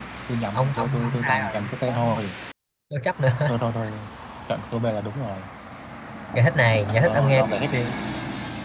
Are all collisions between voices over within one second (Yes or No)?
No